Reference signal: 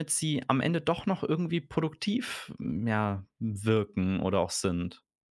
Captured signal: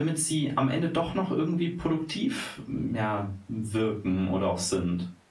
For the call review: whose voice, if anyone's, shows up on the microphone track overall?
echo only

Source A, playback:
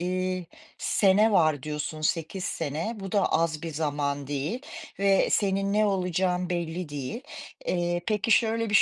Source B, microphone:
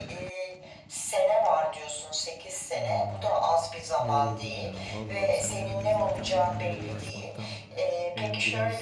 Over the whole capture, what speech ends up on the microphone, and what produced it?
both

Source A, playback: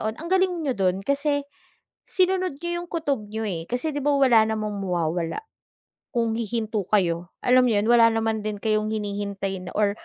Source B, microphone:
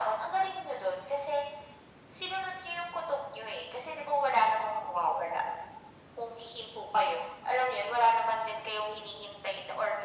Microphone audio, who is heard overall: echo only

